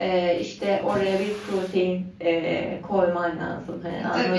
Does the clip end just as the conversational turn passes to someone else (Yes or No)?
Yes